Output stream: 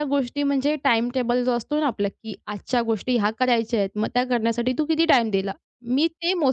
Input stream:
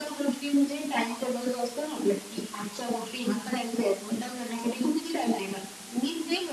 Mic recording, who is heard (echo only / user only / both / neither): echo only